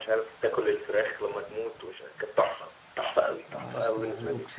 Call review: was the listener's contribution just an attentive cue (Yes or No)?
No